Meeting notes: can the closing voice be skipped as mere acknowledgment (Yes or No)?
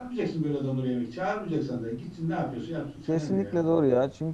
No